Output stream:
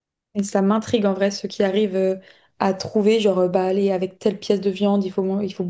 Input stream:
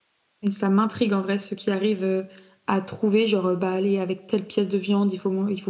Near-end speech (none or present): none